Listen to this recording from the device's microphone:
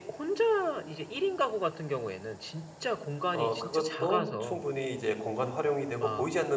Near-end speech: present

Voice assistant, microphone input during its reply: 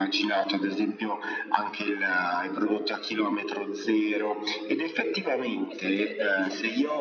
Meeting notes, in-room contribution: present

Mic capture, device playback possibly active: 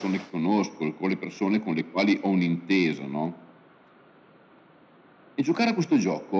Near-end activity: none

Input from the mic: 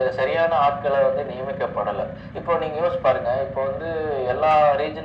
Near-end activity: none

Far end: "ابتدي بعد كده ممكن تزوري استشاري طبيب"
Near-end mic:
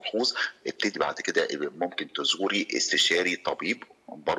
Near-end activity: none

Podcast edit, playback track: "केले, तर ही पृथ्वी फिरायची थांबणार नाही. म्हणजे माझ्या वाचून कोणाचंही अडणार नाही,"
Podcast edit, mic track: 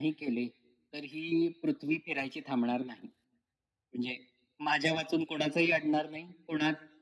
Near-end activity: none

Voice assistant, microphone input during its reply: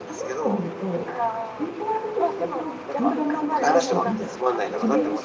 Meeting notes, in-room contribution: present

